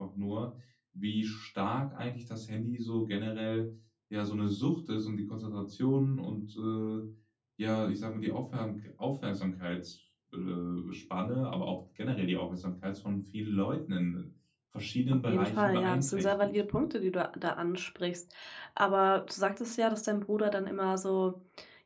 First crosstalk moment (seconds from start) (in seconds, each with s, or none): 15.1 s